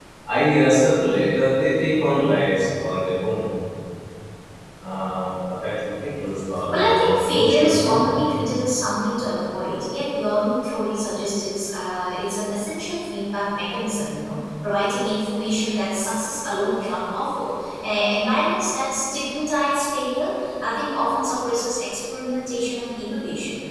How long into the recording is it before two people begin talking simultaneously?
6.7 s

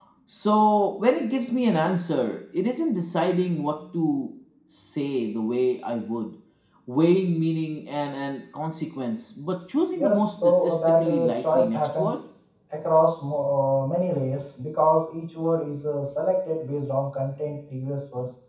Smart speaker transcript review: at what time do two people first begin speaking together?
10.0 s

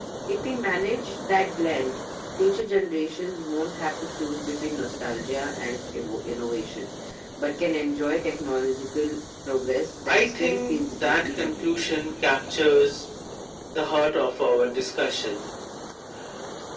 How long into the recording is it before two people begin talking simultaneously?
10.0 s

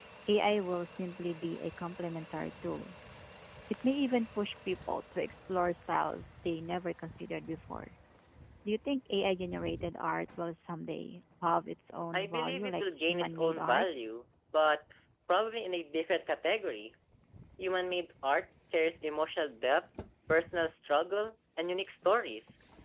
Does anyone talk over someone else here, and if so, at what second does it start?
12.1 s

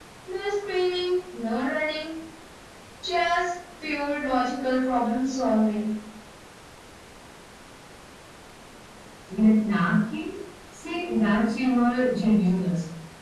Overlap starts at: none

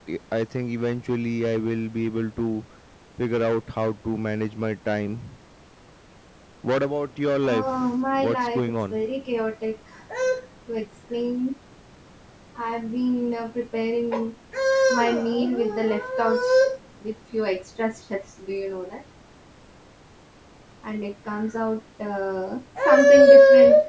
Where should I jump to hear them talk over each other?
7.4 s

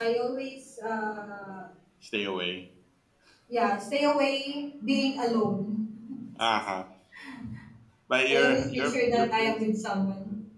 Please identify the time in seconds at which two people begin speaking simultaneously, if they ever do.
8.3 s

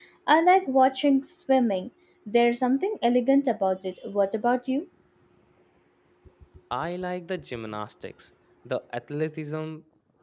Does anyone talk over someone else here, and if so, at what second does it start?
none

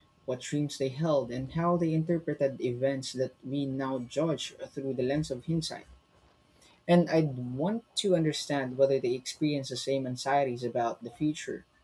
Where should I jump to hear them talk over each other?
none

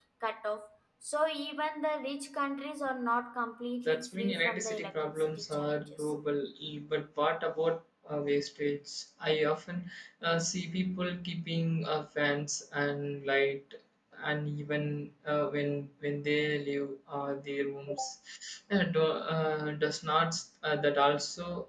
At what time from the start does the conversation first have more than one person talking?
3.9 s

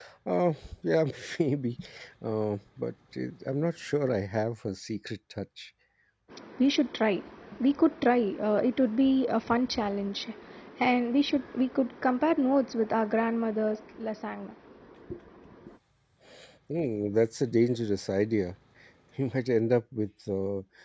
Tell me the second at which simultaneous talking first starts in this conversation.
none

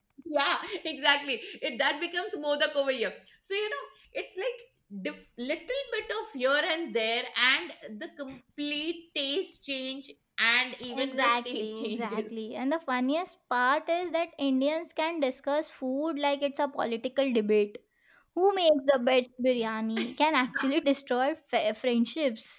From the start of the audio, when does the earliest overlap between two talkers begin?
10.9 s

